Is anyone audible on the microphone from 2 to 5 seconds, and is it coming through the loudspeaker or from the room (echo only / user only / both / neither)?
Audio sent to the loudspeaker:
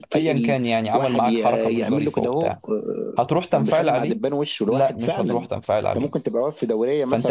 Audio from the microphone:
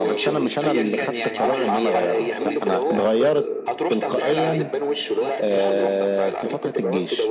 both